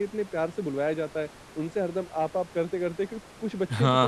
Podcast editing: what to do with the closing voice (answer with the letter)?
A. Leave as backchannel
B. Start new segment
A